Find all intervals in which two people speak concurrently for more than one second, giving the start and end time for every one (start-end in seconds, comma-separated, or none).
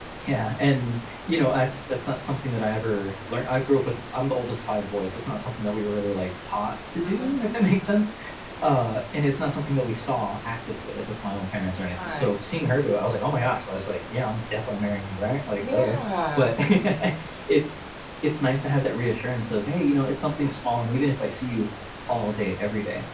none